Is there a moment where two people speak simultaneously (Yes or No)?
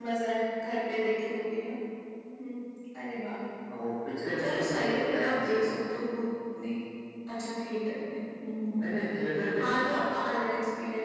Yes